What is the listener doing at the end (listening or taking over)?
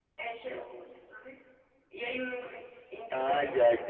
taking over